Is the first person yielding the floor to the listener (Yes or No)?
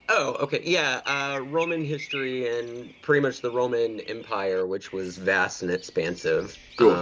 No